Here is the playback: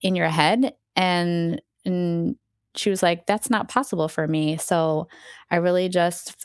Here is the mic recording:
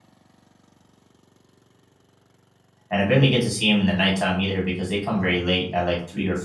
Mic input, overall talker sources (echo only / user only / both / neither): user only